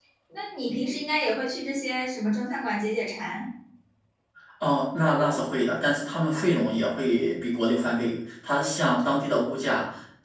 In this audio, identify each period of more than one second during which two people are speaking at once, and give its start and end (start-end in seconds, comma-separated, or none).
none